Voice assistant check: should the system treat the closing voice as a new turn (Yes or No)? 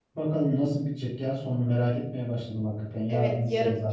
Yes